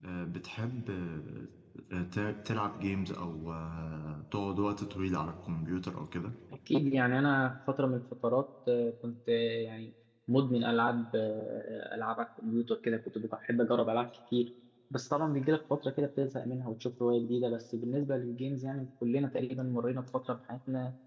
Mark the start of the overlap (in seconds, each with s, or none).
none